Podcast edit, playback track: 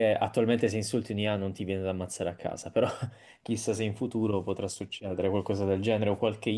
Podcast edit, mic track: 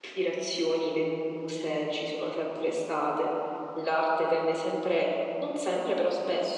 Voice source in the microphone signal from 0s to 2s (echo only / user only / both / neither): user only